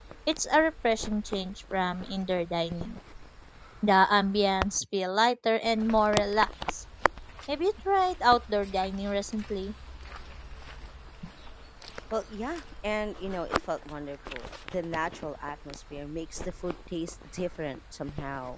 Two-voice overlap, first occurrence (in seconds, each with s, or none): none